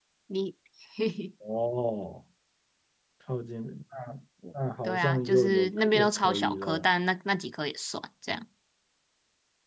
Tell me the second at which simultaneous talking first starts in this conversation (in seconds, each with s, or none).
4.8 s